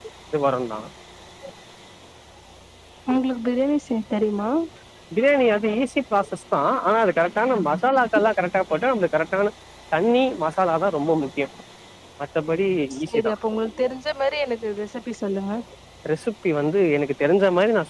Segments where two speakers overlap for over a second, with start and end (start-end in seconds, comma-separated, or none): none